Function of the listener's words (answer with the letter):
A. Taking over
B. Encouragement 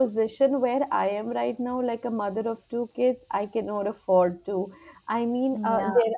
B